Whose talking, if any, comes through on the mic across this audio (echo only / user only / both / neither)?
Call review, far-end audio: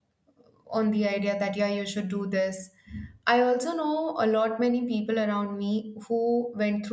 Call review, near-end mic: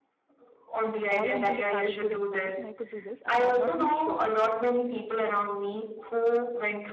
both